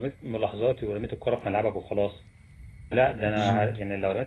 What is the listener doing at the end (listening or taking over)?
listening